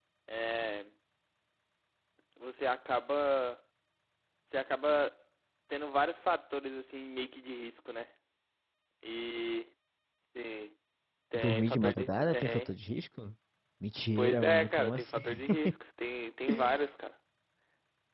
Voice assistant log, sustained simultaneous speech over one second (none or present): present